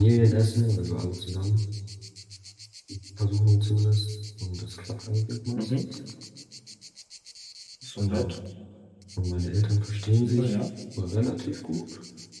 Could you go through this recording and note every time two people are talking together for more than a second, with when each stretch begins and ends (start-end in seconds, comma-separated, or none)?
none